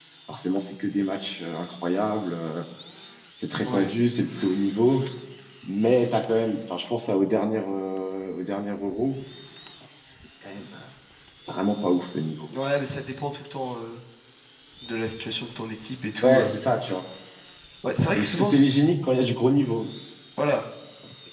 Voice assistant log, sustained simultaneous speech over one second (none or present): none